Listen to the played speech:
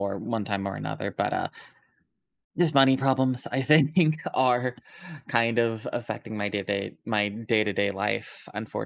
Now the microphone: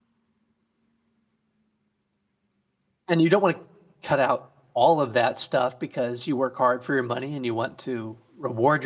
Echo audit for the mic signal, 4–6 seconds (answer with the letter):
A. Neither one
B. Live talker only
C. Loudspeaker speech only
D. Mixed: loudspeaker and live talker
B